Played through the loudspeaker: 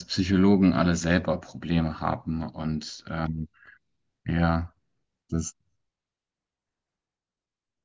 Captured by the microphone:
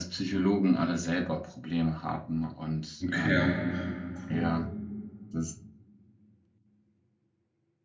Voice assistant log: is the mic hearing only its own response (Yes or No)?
No